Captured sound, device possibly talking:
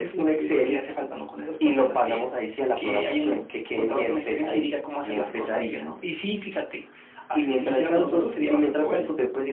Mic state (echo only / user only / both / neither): echo only